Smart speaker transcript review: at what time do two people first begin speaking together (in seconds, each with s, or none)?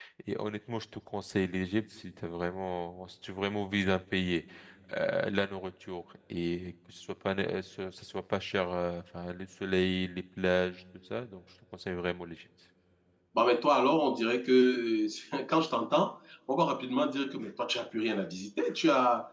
none